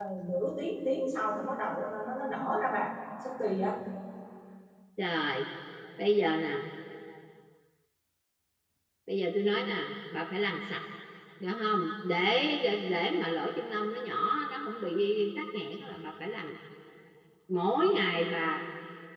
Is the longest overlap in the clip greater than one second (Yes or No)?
No